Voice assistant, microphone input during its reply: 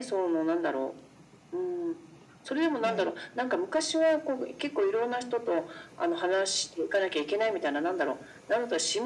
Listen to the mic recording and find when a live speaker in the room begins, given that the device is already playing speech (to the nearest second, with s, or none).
3 s